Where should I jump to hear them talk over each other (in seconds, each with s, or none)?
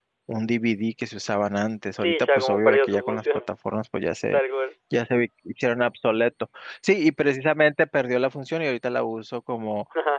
2.0 s